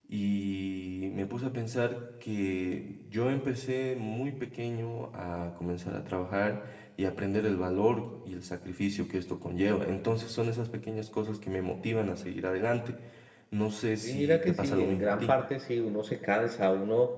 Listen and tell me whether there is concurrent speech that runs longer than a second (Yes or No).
Yes